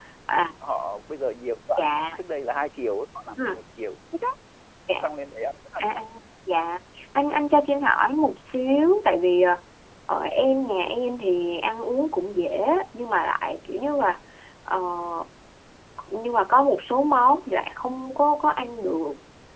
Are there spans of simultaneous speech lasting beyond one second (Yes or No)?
No